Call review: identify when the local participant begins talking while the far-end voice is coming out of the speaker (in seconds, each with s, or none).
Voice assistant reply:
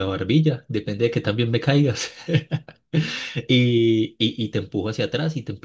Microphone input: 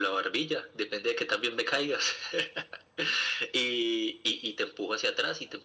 none